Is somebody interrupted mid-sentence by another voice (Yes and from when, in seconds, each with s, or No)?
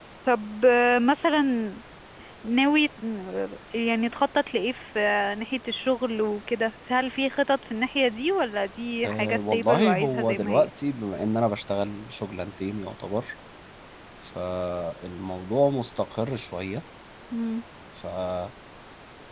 Yes, from 9.0 s